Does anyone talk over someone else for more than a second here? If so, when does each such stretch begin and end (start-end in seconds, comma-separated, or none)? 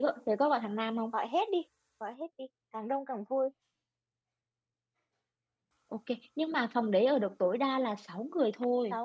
none